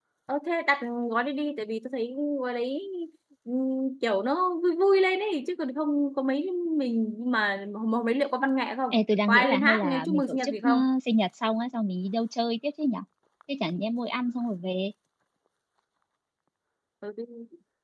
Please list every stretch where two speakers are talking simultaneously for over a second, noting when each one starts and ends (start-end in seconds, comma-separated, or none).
9.3-10.7